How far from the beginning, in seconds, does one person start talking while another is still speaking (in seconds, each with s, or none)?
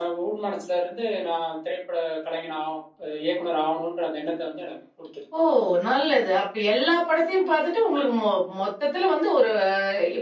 none